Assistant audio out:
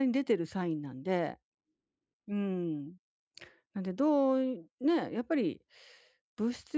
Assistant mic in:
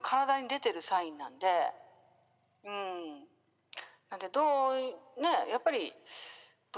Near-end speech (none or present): none